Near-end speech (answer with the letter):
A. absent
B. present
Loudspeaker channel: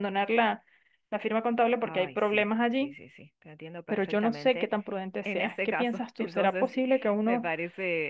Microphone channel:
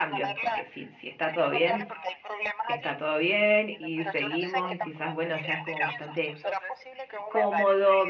B